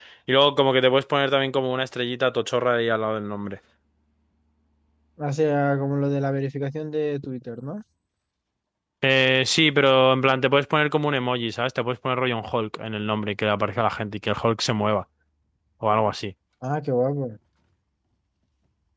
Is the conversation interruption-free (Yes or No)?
Yes